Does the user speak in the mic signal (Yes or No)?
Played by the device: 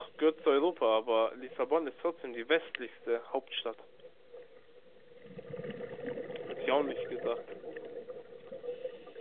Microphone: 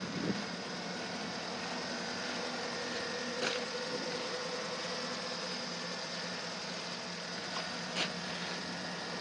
No